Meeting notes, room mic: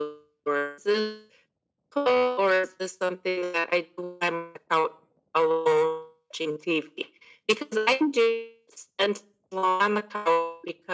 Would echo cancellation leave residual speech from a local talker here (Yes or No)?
No